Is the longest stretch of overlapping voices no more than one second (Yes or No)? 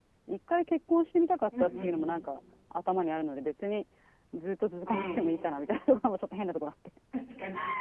Yes